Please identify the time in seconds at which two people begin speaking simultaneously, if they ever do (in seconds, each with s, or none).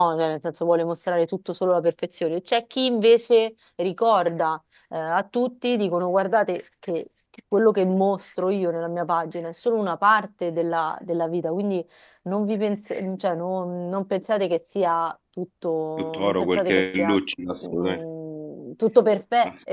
16.0 s